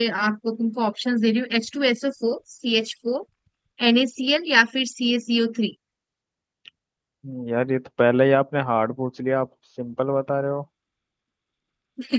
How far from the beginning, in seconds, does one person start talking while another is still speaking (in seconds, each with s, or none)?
none